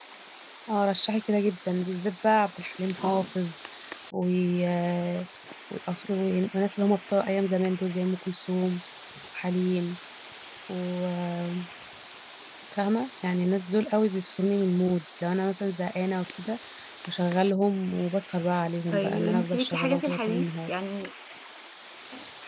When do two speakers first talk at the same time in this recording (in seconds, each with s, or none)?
18.9 s